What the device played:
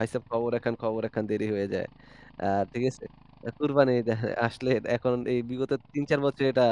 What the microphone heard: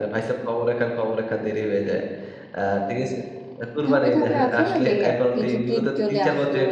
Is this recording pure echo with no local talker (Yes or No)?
No